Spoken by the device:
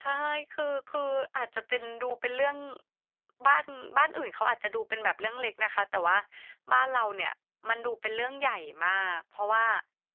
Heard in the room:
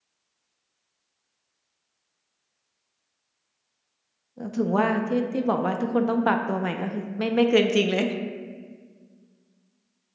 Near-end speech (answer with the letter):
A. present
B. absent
A